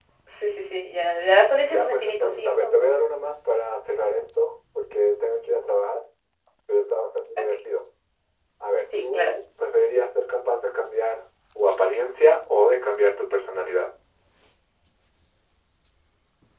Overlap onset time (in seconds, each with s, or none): 1.6 s